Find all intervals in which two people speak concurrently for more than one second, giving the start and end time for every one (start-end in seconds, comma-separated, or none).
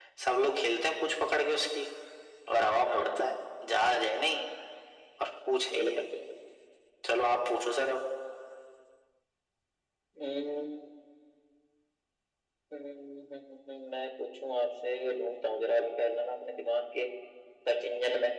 none